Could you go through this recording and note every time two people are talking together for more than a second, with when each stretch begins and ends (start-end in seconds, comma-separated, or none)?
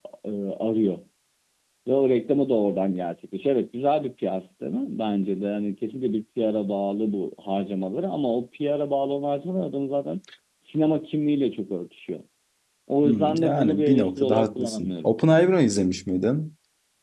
13.0-15.1